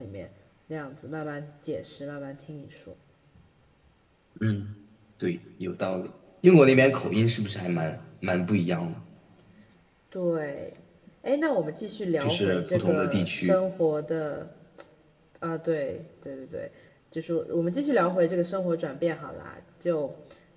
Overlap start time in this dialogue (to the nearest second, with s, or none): 12 s